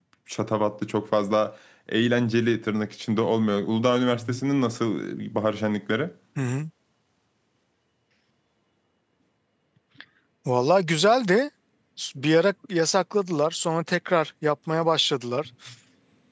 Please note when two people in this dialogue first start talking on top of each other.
none

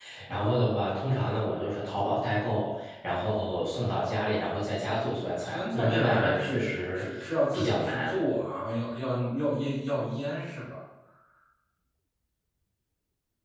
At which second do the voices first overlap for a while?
5.4 s

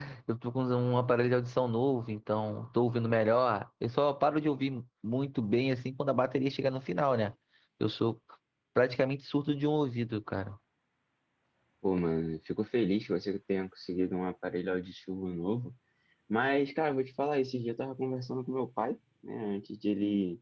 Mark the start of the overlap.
none

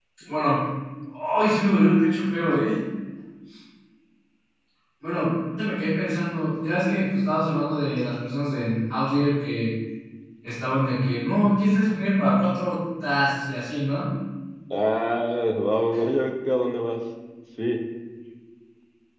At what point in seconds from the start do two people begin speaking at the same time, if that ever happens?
none

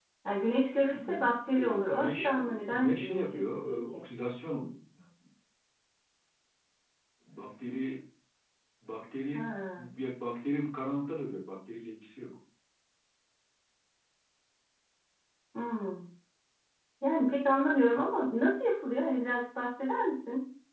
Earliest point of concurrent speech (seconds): 0.9 s

